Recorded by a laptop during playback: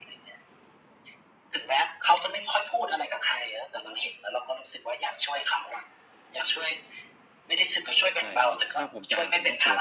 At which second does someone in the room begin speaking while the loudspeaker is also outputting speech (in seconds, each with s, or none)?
8.2 s